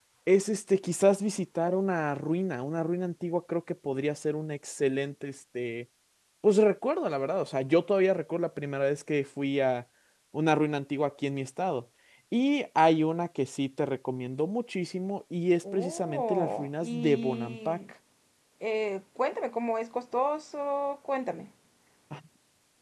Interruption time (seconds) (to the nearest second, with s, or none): 16 s